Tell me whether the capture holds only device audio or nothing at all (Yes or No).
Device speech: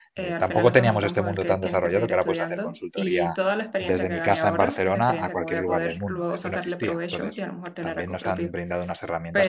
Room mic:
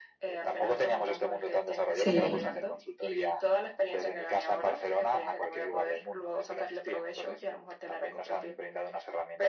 No